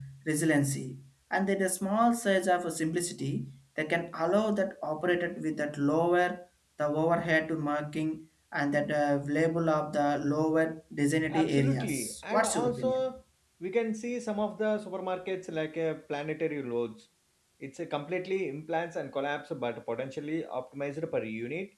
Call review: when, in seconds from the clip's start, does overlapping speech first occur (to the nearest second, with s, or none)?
11 s